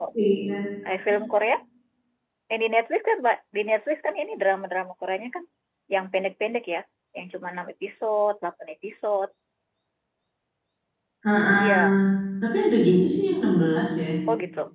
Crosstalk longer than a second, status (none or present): none